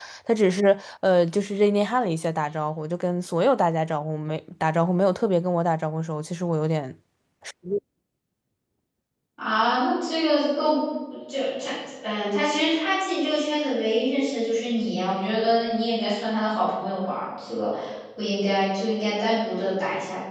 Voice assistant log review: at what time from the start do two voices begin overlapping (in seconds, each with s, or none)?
none